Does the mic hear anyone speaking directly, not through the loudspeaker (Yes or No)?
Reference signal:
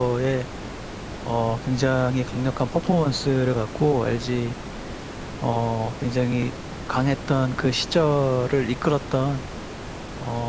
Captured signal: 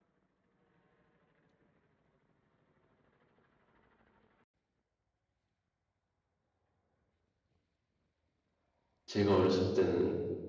Yes